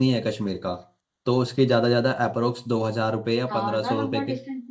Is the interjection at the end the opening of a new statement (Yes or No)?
Yes